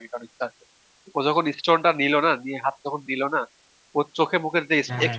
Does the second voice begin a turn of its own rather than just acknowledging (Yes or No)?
No